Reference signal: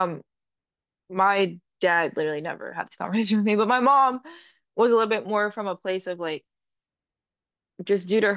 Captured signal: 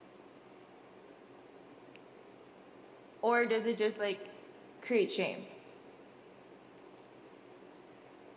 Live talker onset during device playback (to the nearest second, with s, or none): 3 s